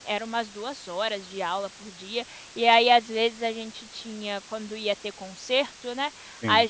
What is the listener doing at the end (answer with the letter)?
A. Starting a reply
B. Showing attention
B